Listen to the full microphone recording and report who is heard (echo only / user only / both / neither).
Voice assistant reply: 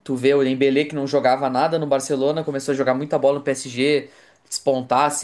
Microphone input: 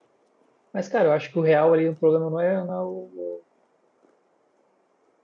user only